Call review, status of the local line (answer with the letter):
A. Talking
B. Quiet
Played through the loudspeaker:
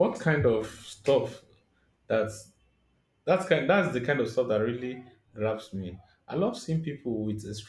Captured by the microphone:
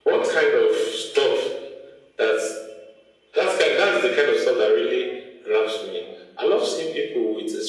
B